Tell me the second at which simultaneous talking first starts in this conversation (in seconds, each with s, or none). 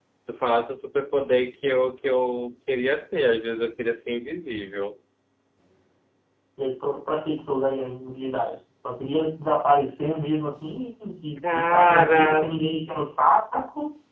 11.4 s